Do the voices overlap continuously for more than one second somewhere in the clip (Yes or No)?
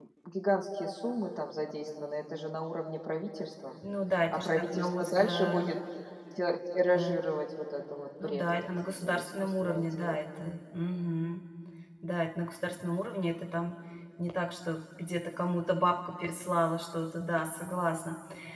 Yes